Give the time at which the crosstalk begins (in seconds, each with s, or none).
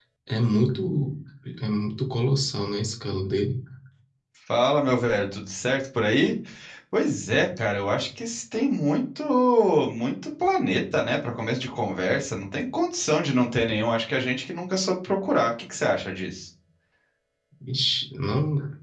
none